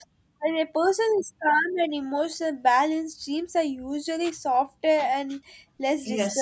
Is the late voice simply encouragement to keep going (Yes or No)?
No